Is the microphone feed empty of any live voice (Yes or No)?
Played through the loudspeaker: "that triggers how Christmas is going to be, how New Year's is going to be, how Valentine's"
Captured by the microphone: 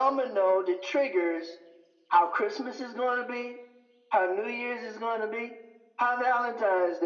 Yes